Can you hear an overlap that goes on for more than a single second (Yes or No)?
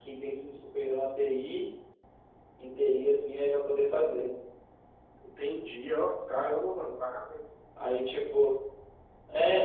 No